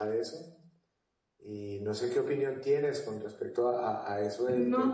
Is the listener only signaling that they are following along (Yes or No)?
Yes